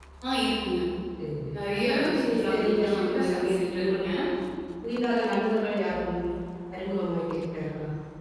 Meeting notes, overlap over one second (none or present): present